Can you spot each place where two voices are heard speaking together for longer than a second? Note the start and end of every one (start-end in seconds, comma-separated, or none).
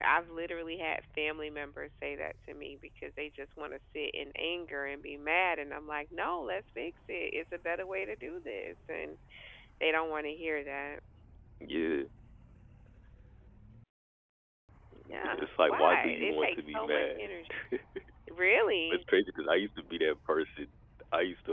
15.1-17.3